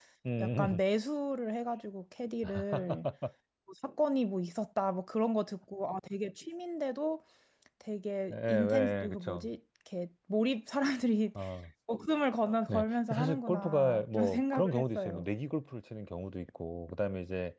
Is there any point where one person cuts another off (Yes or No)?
Yes